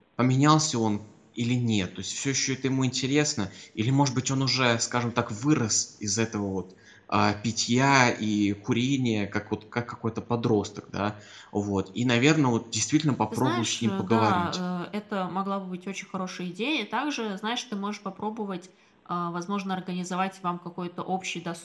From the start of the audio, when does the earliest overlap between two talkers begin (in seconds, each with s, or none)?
13.3 s